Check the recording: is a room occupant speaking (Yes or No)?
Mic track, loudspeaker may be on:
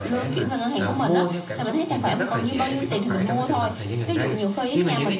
Yes